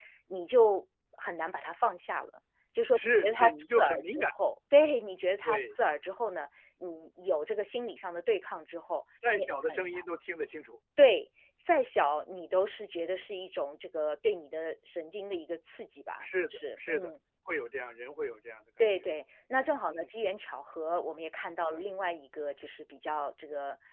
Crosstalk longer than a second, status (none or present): present